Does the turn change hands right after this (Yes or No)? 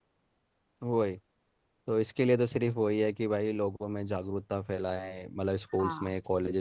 No